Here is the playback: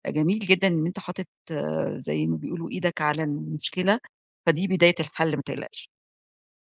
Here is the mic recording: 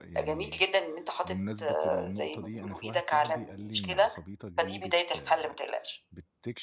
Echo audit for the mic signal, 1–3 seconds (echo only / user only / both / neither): both